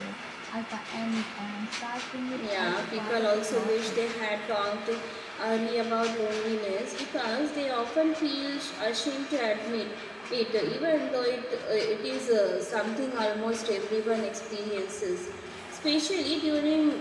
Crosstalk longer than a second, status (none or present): present